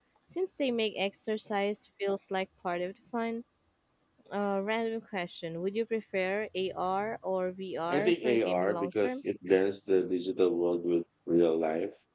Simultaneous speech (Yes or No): Yes